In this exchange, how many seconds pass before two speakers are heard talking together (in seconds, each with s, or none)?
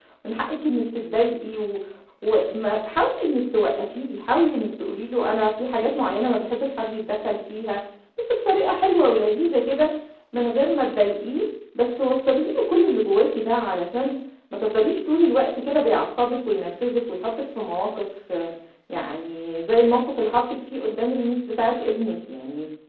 none